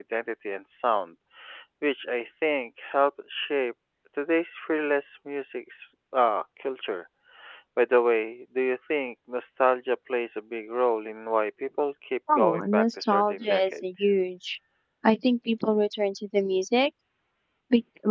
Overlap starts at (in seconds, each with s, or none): 12.3 s